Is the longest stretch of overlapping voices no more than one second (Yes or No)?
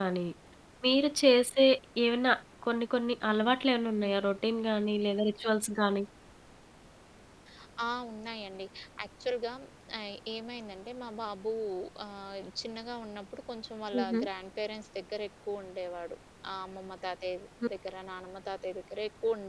Yes